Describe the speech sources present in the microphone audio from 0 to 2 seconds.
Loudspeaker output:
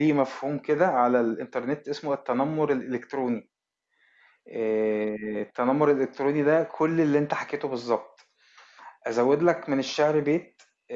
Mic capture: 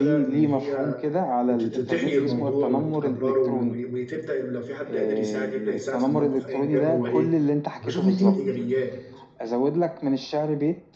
both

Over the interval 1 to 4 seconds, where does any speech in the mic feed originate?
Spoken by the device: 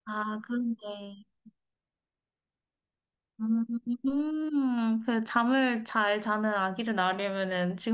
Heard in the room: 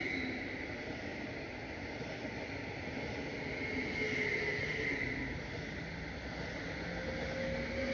neither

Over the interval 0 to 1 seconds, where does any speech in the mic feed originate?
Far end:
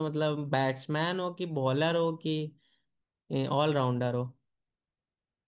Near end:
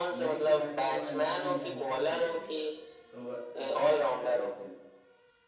both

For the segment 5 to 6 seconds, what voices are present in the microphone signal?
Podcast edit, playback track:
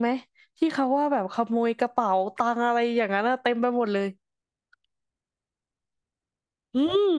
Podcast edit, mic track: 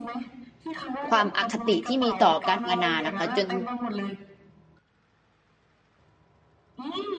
neither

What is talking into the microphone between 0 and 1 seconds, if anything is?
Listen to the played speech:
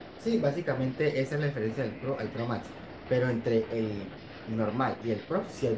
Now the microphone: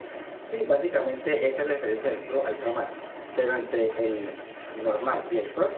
echo only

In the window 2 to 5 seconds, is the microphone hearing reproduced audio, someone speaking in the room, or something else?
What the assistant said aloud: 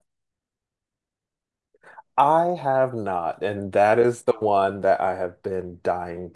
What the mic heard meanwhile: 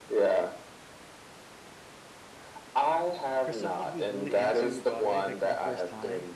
both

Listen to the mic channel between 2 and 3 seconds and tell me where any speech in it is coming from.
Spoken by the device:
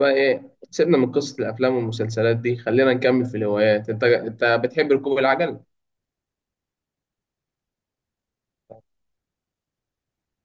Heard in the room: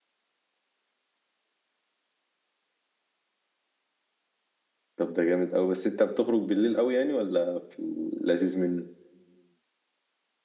neither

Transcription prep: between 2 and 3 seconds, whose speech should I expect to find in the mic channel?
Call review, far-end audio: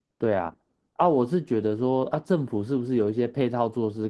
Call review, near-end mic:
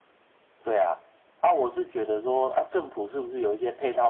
echo only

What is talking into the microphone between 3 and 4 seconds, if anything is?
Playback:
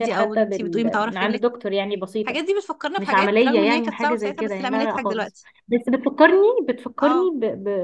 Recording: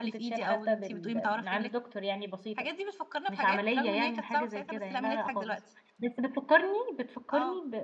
echo only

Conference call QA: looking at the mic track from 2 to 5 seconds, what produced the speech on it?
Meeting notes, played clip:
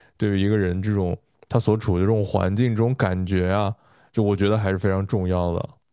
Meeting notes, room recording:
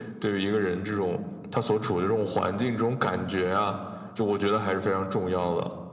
echo only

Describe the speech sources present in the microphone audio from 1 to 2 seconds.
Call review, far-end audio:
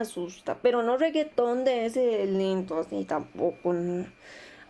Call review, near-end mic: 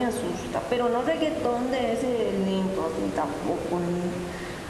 echo only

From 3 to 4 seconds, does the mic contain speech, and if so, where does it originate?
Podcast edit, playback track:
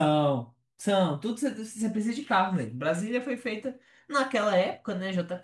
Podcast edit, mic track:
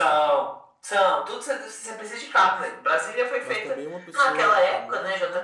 both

